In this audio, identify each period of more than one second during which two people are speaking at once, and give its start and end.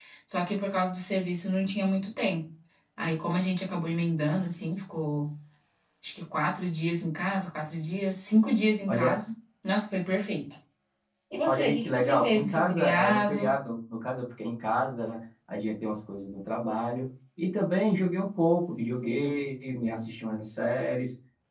11.4-13.5

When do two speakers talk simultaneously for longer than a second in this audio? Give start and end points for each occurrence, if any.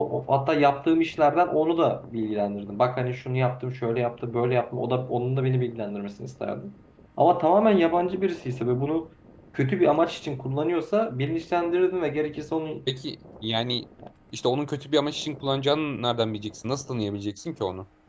none

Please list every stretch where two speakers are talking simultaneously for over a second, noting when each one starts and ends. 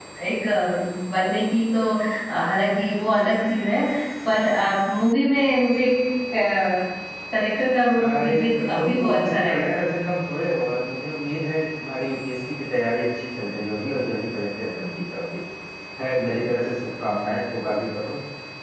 8.0-9.8

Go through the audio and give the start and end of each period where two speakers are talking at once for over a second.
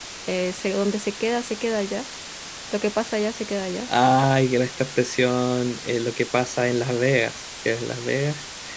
none

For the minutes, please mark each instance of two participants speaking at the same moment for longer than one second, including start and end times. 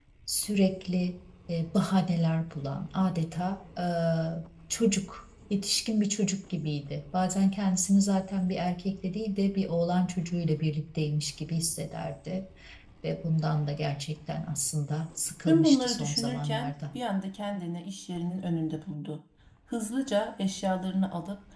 15.5-17.0

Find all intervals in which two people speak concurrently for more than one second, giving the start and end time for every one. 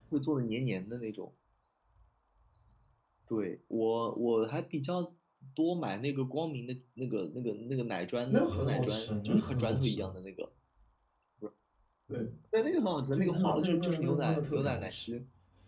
8.3-10.1, 13.1-15.1

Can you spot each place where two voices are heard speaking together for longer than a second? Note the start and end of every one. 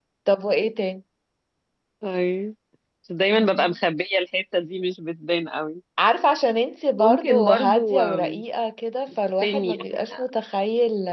7.0-8.4

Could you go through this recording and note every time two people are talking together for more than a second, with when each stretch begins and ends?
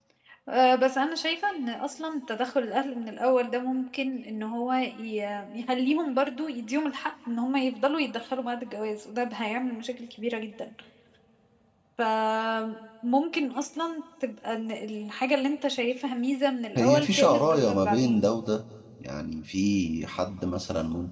16.8-18.2

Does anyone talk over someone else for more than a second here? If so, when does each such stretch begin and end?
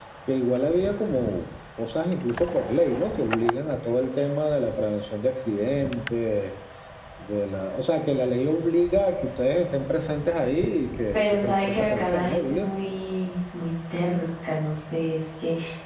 11.1-12.7

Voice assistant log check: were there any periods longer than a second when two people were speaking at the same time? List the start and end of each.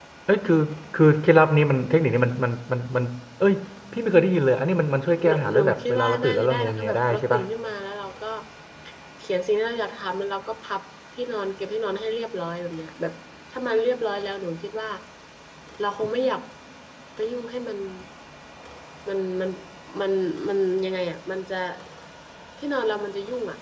5.3-7.4

